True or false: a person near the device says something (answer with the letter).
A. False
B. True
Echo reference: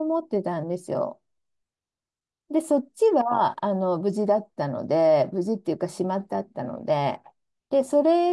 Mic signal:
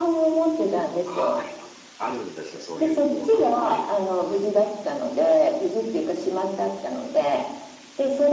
B